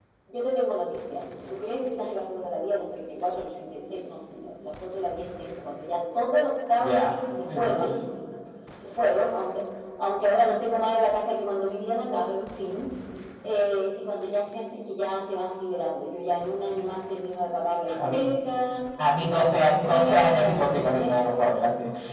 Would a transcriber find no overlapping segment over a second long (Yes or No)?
No